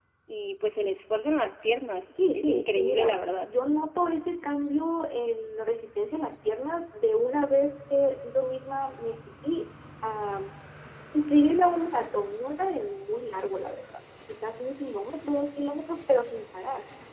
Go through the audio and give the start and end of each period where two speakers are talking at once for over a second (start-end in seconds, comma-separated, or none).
2.1-3.5